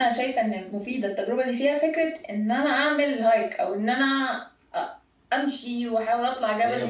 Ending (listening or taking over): taking over